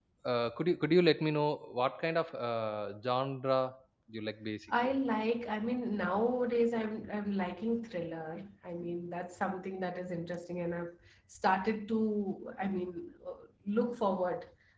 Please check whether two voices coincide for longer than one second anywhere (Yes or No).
No